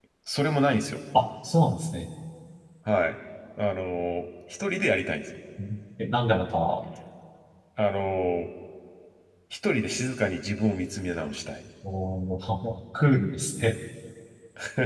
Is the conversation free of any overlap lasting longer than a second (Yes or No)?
Yes